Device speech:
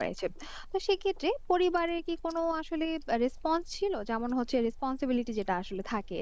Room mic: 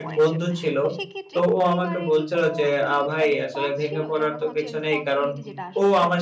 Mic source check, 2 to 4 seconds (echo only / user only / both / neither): both